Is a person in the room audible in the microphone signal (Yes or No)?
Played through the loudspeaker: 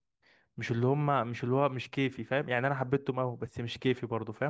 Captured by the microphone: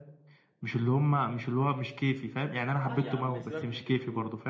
Yes